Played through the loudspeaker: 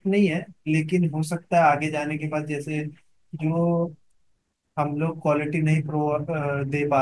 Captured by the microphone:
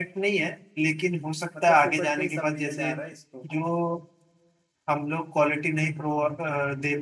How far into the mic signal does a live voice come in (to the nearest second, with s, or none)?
2 s